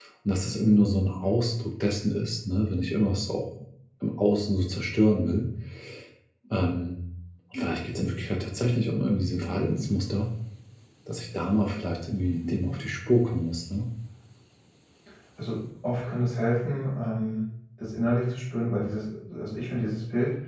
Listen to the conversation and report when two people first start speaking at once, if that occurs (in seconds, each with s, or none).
none